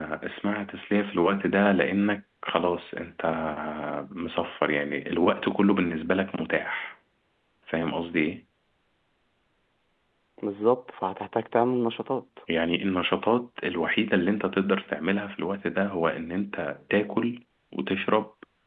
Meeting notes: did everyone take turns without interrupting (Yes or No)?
Yes